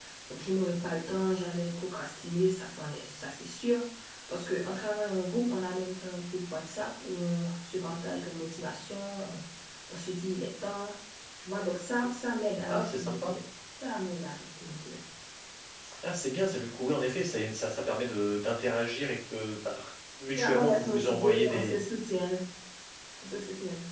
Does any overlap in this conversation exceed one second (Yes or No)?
Yes